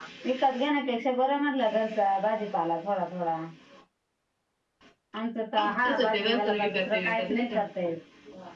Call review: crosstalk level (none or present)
present